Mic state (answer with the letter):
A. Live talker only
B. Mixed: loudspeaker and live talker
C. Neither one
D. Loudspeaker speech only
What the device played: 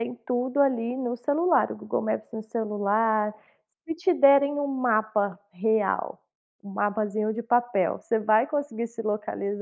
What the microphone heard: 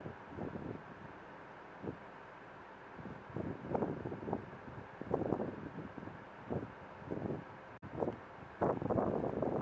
C